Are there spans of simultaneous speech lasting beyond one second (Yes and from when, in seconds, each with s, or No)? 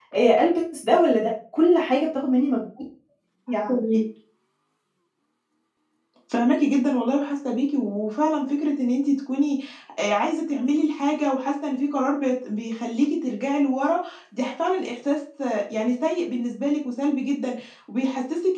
No